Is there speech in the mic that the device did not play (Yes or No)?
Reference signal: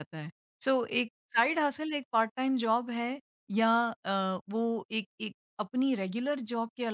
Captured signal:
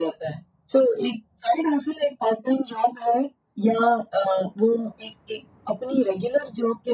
No